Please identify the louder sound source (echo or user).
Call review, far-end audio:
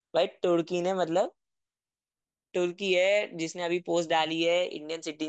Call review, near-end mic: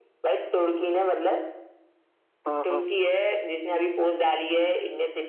user